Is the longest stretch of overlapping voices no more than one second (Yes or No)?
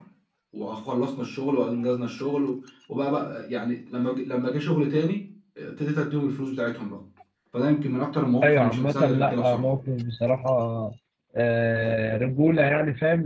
No